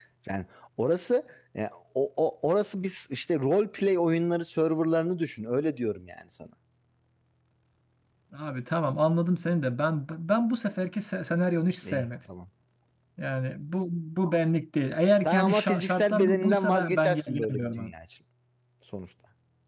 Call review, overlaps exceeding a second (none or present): present